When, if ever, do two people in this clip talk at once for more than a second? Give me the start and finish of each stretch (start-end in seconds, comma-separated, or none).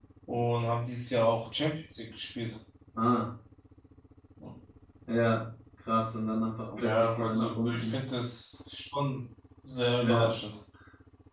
6.8-8.0